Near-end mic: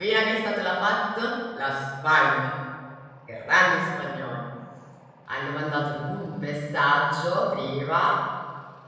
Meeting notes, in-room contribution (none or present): present